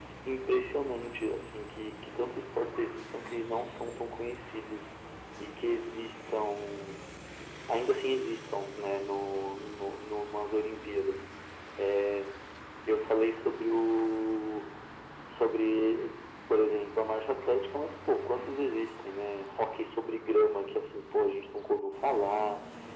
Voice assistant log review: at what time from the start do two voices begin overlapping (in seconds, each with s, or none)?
none